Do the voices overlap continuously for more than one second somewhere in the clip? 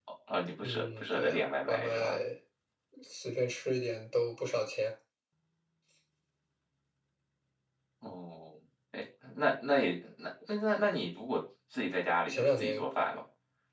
Yes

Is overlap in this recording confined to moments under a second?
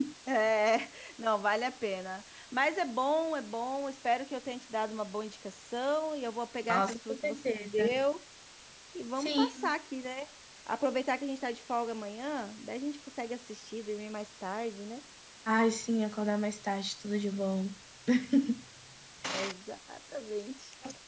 No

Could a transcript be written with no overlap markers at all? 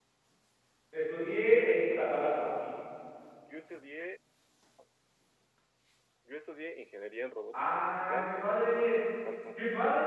No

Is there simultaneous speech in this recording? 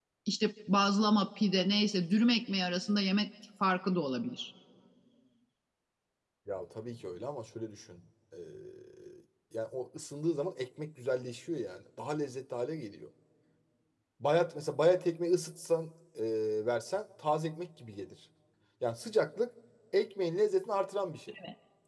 No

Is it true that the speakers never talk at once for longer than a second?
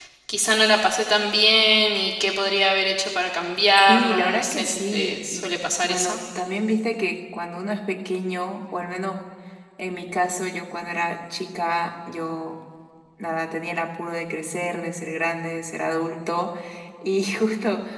No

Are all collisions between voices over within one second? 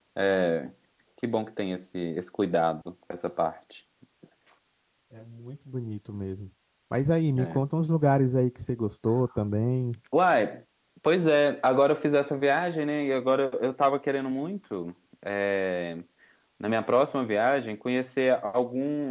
Yes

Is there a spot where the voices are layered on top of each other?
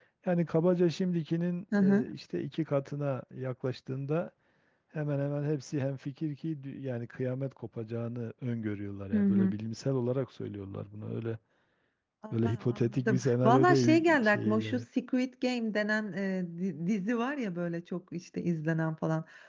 Yes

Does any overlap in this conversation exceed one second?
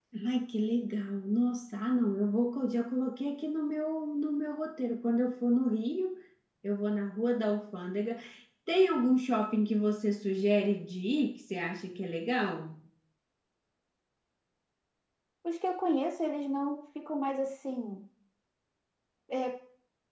No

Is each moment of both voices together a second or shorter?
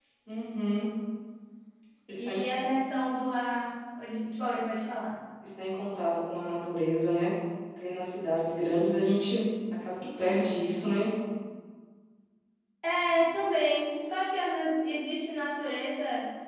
Yes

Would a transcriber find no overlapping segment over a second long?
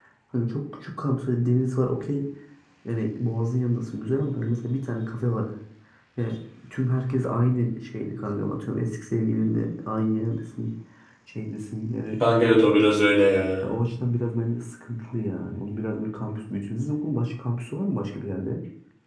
Yes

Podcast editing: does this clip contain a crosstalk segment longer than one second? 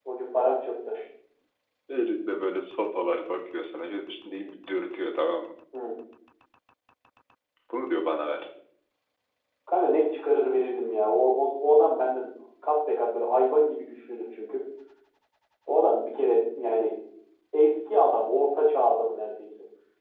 No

